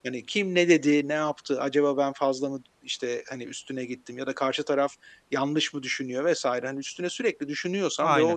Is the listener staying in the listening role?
Yes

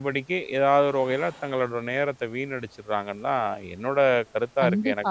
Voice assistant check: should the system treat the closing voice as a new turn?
Yes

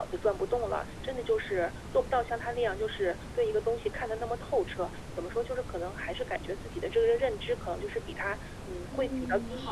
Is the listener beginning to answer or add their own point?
Yes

